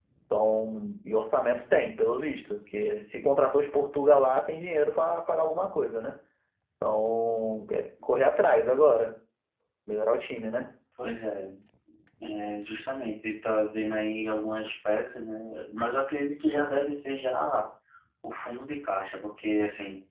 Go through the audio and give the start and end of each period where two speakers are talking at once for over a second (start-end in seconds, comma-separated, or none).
none